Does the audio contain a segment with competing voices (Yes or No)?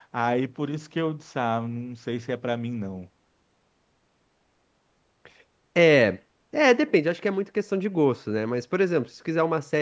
No